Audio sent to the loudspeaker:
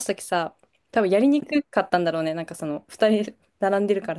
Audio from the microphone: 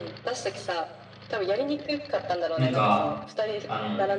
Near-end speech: present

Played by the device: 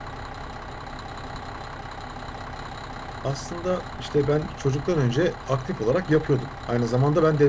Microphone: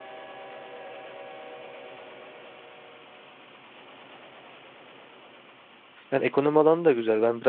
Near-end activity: present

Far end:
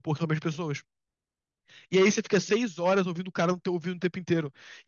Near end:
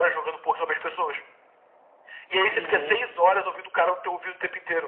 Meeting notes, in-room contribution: present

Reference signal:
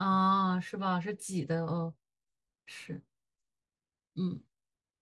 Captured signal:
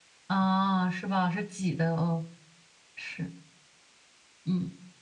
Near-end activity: none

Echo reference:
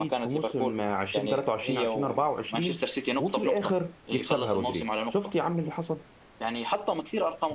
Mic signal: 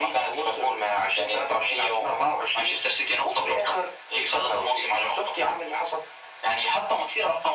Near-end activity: none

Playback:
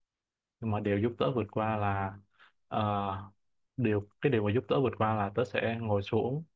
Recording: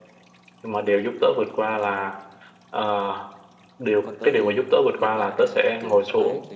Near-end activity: present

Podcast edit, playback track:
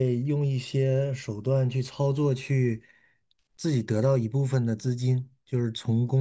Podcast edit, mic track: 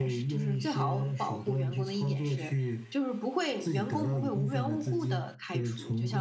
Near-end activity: present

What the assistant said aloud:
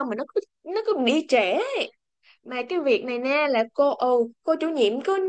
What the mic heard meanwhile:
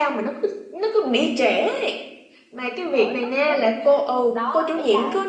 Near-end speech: present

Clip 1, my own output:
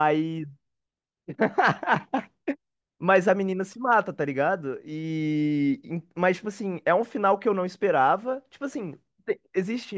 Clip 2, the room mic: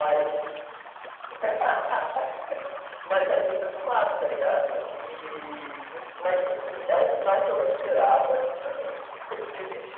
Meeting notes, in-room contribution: none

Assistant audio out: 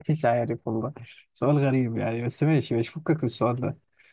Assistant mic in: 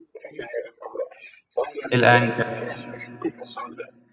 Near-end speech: present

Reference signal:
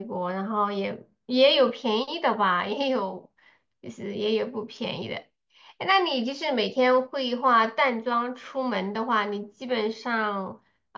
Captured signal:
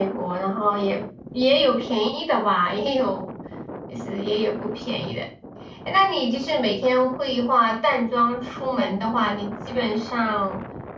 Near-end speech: none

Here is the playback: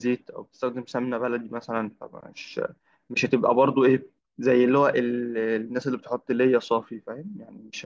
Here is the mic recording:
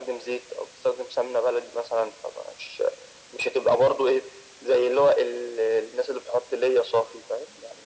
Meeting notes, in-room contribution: none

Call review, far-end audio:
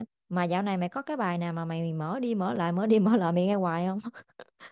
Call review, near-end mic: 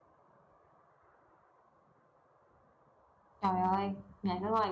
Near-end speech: present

